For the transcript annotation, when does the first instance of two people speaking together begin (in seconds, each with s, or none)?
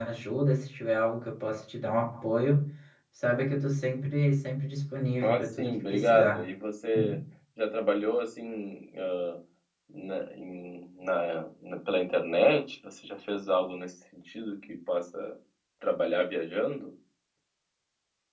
5.2 s